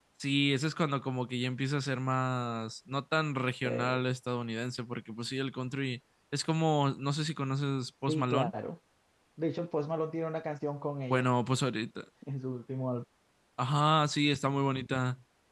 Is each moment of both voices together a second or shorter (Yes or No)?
Yes